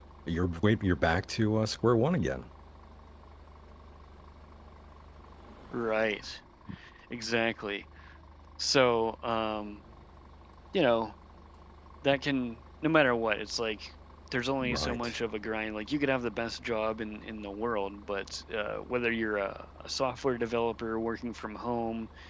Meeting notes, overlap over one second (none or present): none